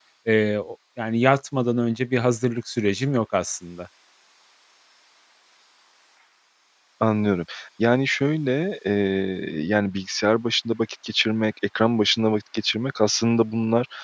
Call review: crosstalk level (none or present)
none